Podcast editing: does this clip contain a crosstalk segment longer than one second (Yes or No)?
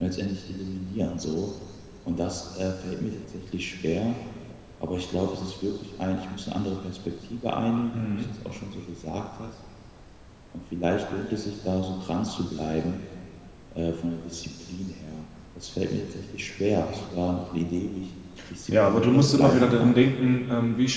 Yes